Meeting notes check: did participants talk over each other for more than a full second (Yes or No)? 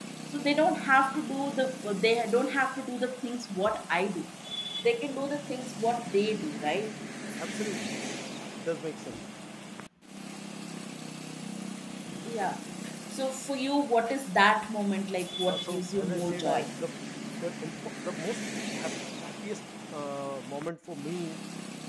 Yes